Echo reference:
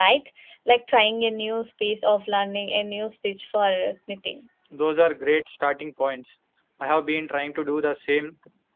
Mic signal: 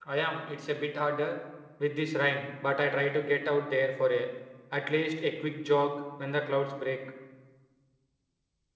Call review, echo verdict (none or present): none